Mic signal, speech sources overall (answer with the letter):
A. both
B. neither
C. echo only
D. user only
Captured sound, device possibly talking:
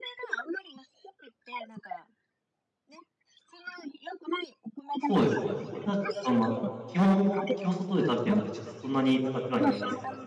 A